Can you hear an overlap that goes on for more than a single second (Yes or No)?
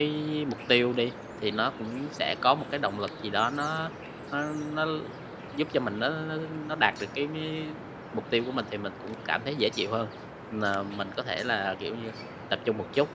No